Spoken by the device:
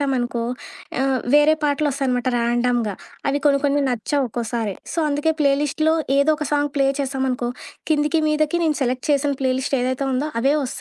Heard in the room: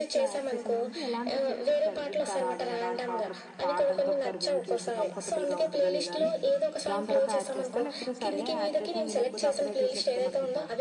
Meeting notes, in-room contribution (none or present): present